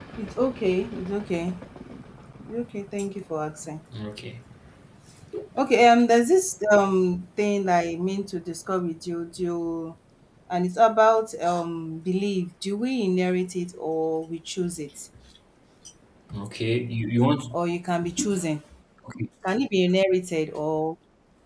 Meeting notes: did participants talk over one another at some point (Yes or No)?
No